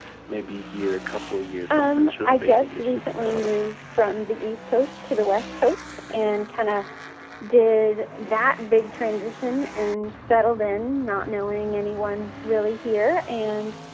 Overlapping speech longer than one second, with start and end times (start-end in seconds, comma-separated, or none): 1.7-3.5